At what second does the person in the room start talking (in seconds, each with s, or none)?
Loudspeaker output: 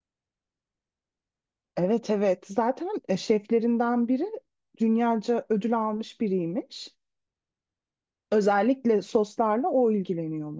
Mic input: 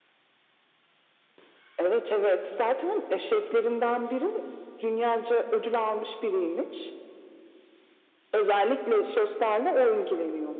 none